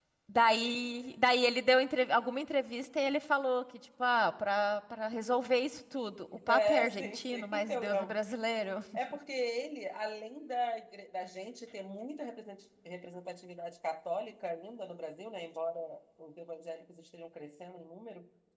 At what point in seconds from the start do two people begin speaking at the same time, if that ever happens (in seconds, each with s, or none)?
6.5 s